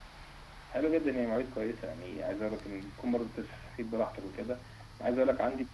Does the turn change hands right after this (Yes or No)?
No